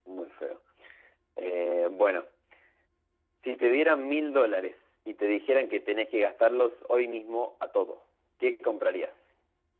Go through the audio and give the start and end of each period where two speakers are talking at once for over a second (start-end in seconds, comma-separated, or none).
none